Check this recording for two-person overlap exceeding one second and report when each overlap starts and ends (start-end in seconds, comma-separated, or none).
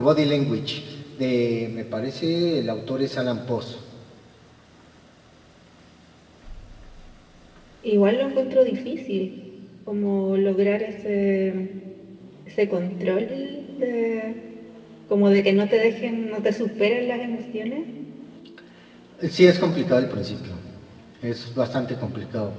none